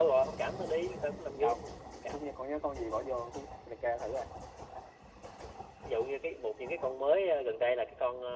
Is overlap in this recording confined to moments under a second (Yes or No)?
Yes